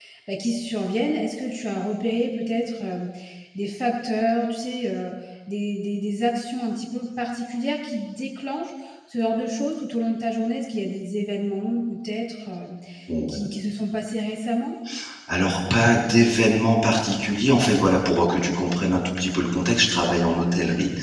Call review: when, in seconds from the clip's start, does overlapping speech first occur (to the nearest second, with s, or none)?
none